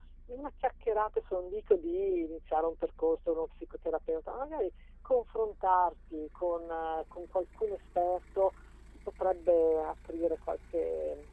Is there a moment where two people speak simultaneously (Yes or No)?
No